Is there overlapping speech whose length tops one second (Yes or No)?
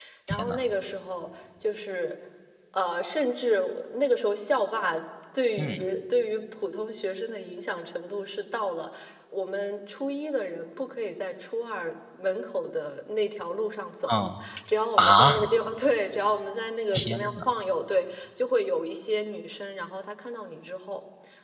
No